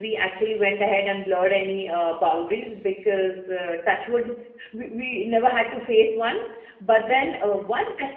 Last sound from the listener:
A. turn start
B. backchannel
B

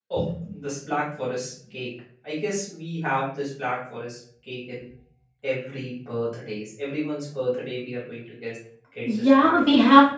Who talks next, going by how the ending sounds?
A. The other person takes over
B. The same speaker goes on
A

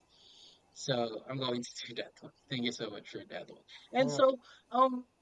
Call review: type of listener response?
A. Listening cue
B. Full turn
A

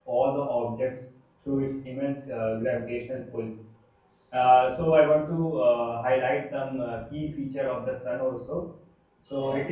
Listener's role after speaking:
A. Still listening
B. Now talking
A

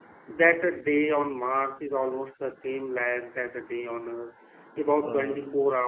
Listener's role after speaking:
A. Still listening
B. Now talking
A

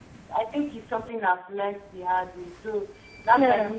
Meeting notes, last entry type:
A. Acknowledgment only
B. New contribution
A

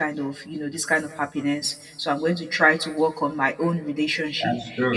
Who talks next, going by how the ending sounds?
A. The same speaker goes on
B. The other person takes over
A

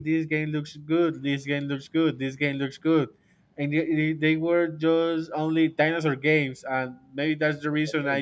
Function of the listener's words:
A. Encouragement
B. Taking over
A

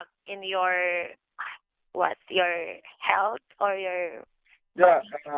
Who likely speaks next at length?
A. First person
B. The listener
B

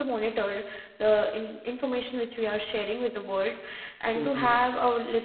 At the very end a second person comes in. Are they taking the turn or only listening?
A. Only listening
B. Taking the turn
A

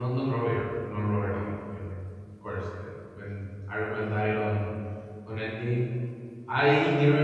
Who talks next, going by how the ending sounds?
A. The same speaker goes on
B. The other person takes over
A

